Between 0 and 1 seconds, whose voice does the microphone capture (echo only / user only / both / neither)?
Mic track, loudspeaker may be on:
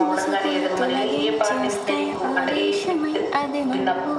both